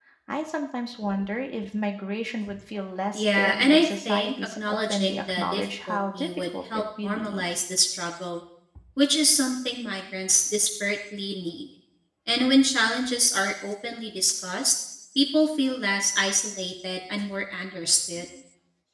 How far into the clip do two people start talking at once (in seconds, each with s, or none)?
3.1 s